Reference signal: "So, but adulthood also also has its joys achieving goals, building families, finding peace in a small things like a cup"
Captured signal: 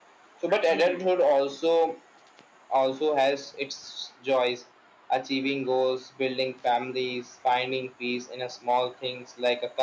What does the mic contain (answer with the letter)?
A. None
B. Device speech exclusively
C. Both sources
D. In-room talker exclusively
C